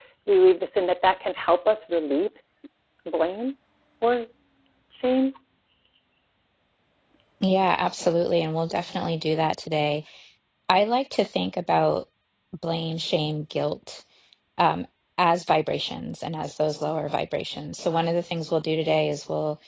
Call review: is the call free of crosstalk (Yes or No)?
Yes